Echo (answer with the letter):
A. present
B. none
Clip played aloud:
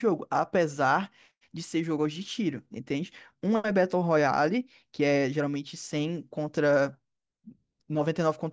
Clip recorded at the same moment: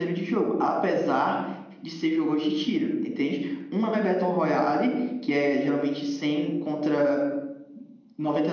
A